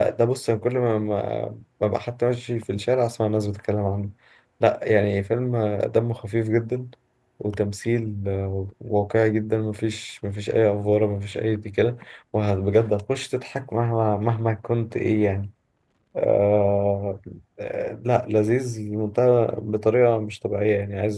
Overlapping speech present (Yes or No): No